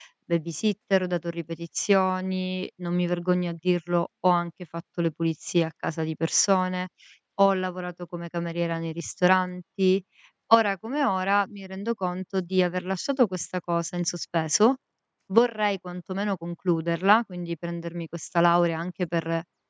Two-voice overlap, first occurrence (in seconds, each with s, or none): none